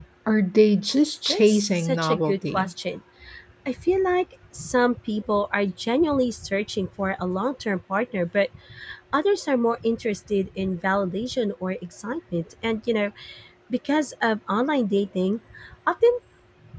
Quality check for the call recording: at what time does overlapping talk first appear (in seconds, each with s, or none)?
1.3 s